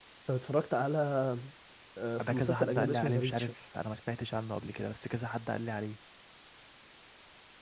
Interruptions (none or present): present